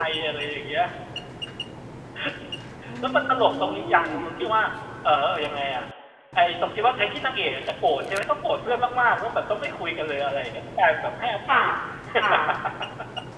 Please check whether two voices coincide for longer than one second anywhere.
Yes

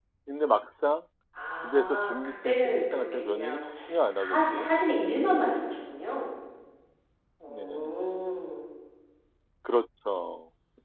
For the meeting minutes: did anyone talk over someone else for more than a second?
Yes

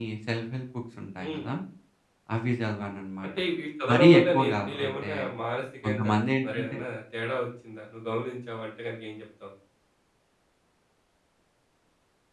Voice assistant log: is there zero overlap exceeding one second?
No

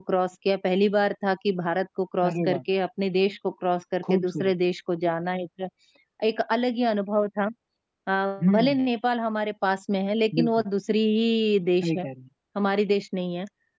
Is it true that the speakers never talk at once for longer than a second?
Yes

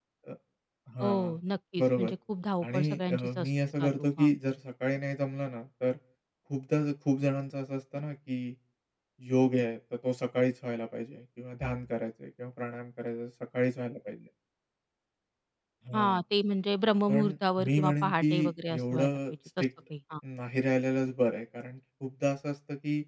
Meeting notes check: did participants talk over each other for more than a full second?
Yes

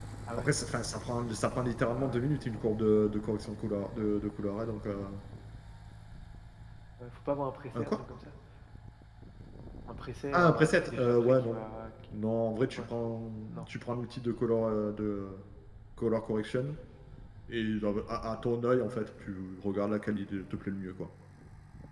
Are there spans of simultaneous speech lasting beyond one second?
Yes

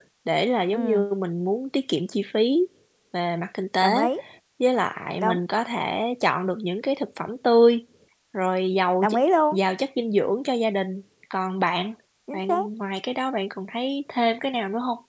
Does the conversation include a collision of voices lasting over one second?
No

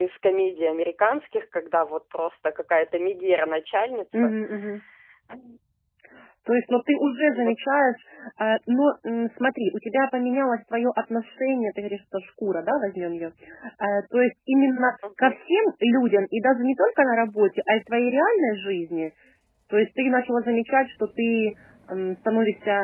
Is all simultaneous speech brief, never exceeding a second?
Yes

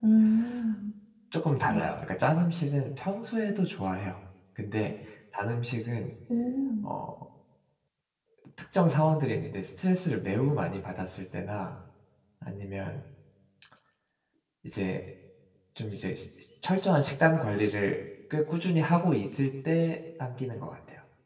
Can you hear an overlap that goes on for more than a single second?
No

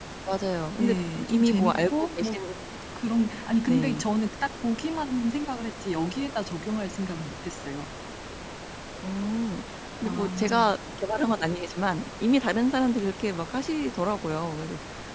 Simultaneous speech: Yes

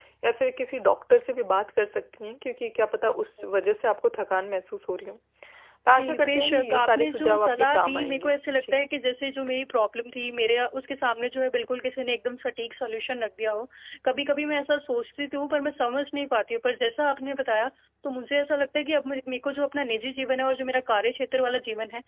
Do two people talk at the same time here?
Yes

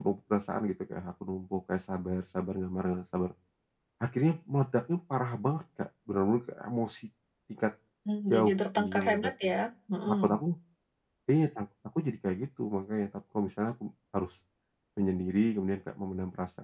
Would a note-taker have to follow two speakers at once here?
Yes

